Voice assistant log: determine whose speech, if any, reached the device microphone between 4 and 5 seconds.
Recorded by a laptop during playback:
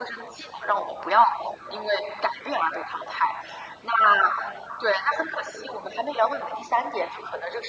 echo only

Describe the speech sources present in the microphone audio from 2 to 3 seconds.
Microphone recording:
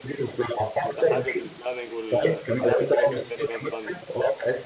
both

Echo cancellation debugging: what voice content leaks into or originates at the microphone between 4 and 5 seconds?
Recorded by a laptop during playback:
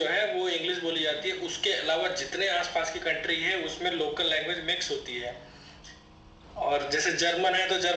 echo only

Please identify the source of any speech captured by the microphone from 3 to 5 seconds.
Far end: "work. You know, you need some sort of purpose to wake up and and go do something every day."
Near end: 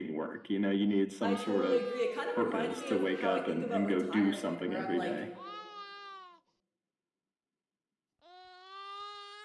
both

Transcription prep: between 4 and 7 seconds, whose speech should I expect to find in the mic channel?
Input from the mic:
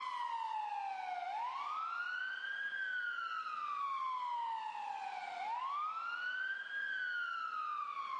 neither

